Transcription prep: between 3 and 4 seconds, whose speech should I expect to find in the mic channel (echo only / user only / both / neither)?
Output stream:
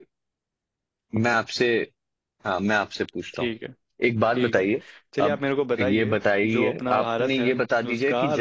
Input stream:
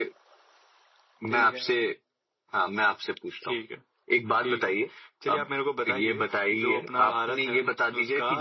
echo only